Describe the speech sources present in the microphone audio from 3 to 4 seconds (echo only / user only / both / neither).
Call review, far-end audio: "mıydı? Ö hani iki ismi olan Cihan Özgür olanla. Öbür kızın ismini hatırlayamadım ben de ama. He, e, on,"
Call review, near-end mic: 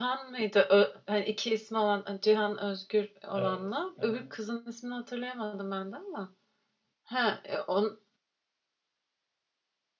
both